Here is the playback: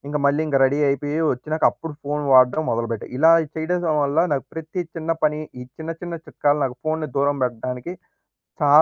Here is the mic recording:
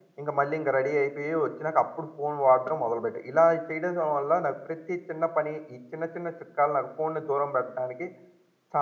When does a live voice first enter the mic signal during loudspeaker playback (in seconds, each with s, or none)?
none